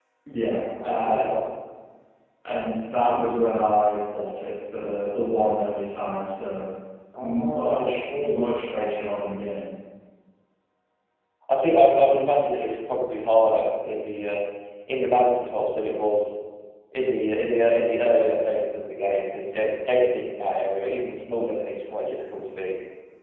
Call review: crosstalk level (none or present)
present